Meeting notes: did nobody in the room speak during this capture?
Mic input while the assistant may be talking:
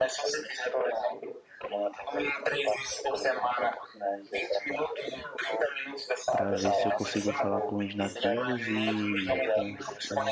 No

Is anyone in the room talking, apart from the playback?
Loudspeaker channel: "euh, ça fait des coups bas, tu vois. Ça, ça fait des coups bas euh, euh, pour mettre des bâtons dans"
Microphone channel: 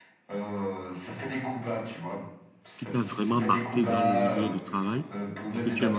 Yes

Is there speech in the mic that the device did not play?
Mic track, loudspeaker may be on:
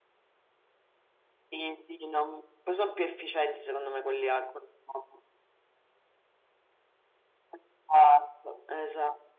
No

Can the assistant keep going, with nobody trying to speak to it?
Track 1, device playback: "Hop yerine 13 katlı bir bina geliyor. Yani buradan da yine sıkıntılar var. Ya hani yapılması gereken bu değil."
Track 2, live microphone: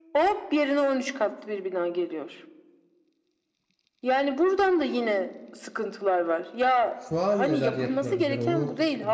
No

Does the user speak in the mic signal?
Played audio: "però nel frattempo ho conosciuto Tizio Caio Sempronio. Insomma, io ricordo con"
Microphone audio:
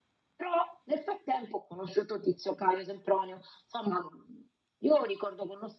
No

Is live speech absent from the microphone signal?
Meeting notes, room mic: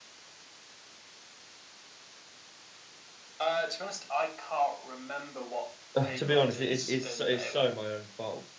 No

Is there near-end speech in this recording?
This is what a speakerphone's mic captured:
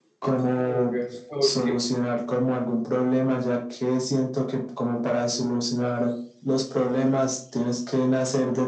Yes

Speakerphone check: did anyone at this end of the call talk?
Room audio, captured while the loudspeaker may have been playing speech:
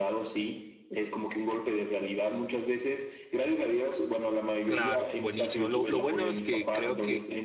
Yes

